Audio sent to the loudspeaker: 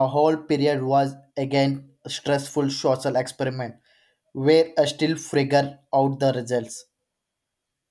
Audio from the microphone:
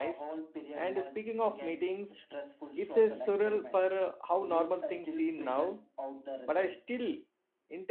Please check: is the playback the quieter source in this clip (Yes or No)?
Yes